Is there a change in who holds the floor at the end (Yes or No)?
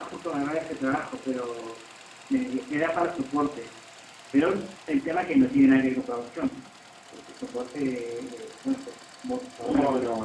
Yes